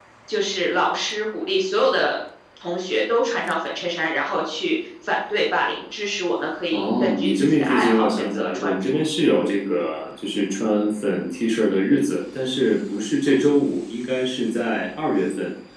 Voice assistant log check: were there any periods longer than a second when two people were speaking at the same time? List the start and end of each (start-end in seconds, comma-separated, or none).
6.7-9.0